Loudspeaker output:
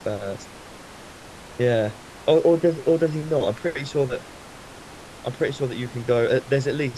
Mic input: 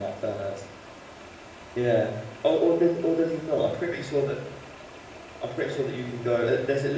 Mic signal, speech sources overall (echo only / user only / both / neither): echo only